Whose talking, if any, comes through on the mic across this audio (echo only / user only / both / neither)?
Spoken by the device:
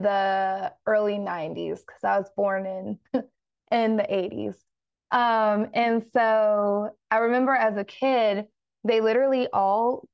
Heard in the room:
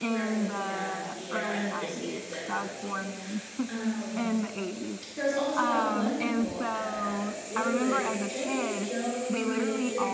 both